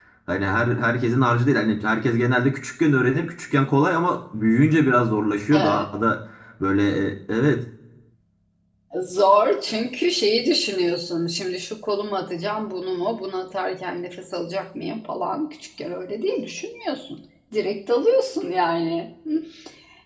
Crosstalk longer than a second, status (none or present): none